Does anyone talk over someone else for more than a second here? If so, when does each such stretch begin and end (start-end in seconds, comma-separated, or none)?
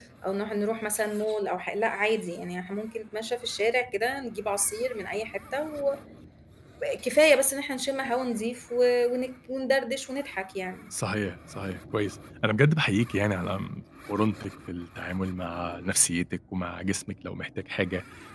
none